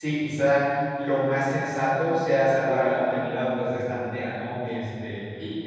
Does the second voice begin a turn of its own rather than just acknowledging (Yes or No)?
Yes